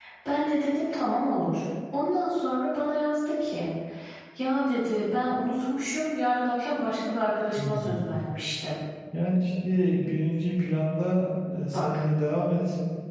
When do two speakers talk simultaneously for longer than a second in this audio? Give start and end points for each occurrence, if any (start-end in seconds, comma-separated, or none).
none